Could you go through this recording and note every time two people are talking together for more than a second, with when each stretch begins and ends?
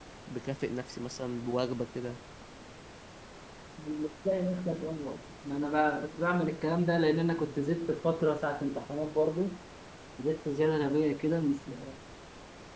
none

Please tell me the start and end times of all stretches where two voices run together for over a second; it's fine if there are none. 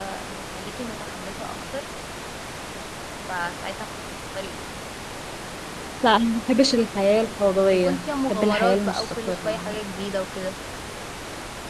7.6-9.6

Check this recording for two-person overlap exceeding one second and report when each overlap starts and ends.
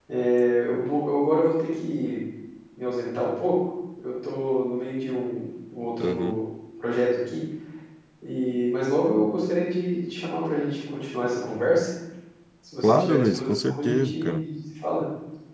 12.8-14.4

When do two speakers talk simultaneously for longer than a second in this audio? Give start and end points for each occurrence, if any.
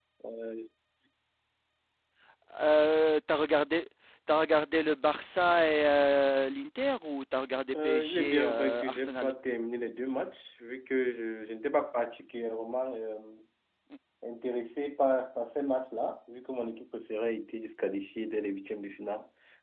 7.7-9.3

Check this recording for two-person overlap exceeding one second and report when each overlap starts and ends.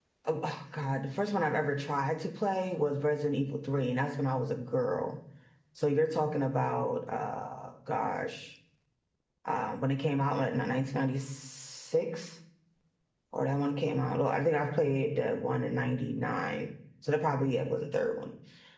none

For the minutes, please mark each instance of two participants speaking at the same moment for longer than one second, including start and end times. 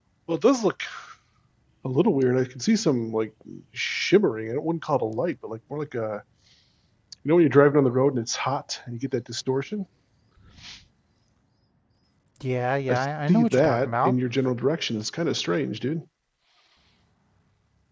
12.9-14.1

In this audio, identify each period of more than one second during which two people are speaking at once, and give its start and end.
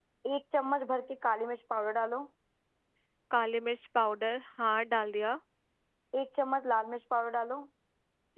none

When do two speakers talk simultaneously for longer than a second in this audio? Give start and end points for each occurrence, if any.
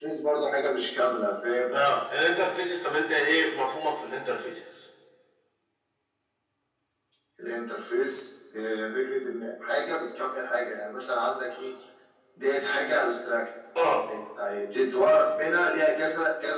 none

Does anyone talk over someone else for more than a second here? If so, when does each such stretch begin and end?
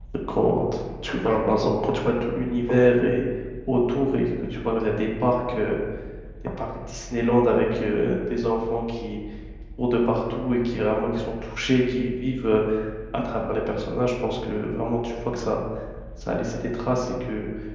none

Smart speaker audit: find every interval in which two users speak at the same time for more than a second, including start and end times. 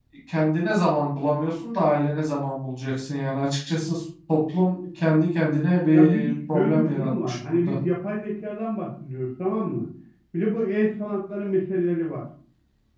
5.9-7.8

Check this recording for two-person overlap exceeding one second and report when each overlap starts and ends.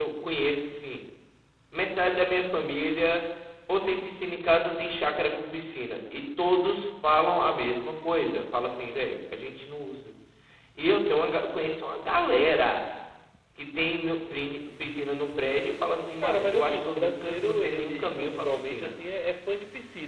16.2-18.9

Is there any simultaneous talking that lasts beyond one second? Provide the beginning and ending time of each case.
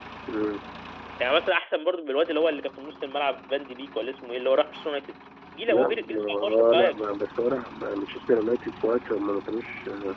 5.7-7.0

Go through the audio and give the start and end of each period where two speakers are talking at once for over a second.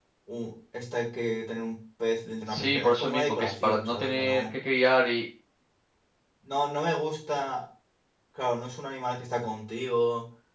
2.5-4.6

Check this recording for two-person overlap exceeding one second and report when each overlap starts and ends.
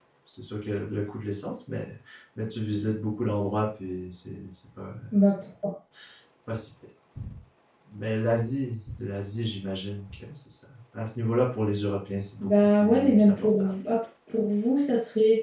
12.4-13.7

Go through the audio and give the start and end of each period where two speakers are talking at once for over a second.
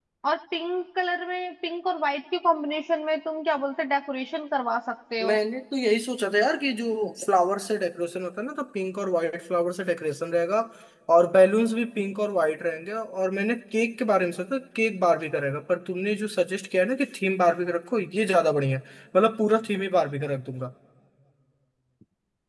none

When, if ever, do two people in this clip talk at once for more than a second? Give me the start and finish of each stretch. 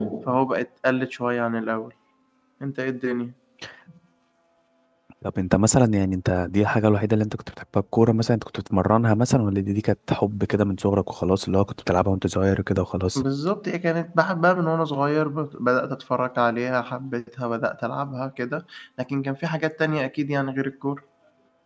none

